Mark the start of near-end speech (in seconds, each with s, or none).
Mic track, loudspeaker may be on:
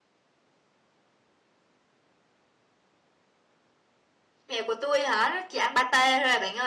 4.5 s